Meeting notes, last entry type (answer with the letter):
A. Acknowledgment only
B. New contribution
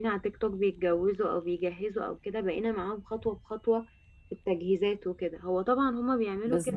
A